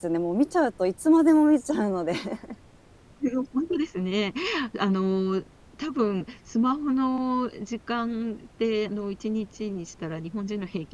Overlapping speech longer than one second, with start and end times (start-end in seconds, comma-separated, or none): none